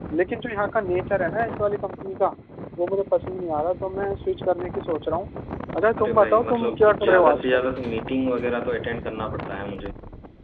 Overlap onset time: 6.0 s

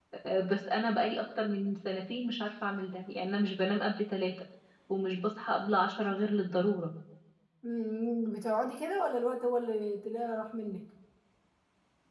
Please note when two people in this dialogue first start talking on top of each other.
none

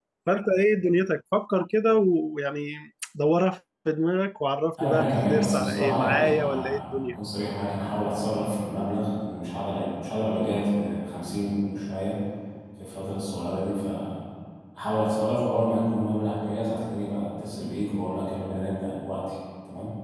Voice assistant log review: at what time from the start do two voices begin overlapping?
4.8 s

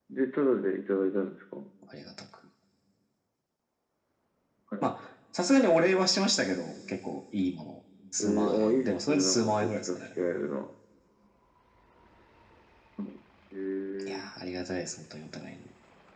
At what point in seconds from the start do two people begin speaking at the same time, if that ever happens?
8.2 s

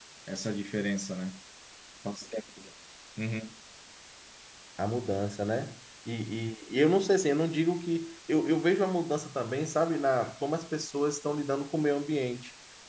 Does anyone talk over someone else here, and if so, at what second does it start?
none

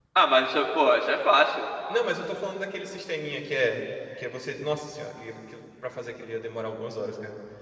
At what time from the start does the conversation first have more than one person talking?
none

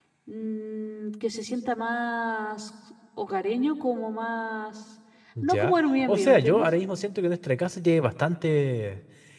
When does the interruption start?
5.4 s

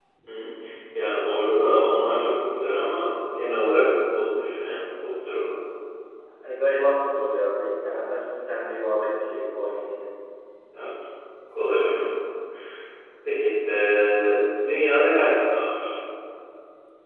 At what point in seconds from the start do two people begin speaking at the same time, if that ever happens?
none

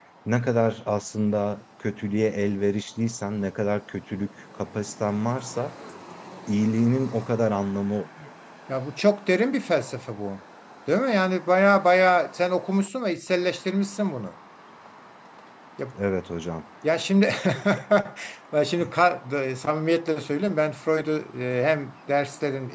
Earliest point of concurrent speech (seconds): none

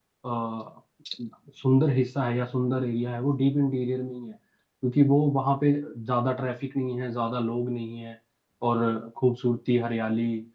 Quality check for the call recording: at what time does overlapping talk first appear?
none

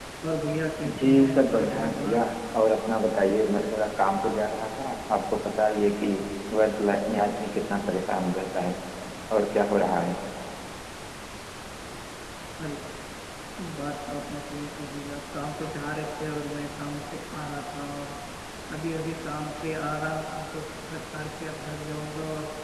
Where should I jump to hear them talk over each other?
1.0 s

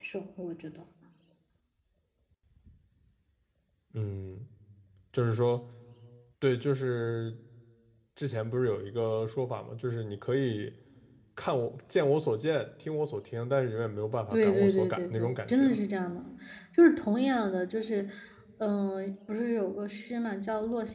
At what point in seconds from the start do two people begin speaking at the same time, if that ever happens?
14.3 s

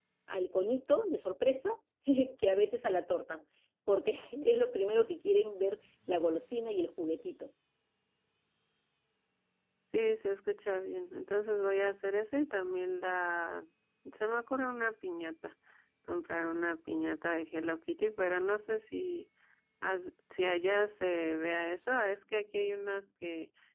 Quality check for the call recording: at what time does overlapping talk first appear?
none

